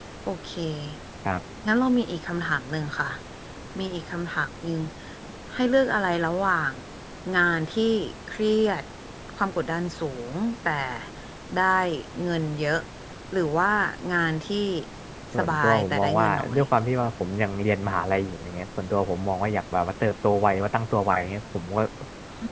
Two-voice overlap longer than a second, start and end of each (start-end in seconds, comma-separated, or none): 15.4-16.6